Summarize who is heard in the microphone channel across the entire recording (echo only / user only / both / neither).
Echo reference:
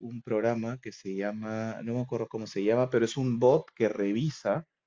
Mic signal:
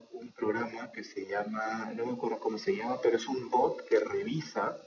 echo only